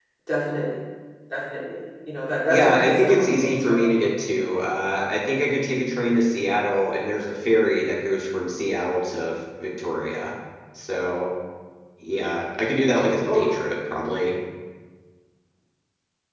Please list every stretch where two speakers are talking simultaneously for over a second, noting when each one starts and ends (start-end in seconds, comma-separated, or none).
2.5-3.9